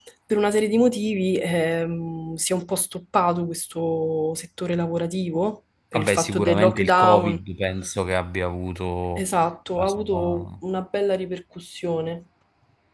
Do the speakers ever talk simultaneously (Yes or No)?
Yes